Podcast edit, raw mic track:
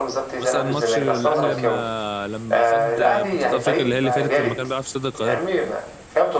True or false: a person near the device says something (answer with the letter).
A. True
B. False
A